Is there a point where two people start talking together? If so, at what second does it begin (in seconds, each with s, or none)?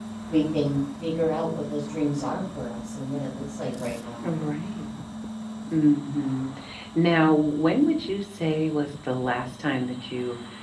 none